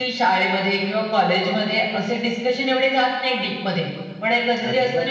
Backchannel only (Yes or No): Yes